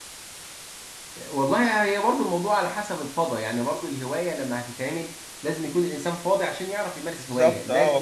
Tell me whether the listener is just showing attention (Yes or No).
No